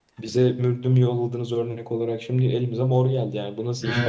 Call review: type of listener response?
taking over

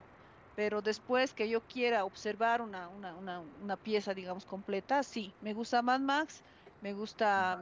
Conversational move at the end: listening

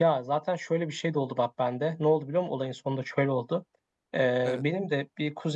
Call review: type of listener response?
listening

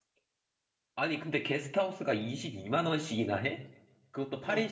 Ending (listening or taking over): taking over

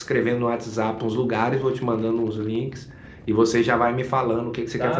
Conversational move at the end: taking over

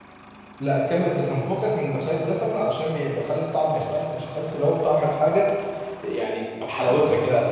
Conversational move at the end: listening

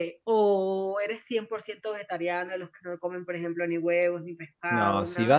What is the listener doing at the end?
taking over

